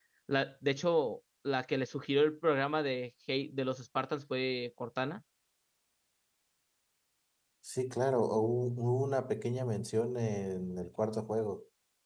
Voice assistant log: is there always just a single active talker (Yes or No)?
Yes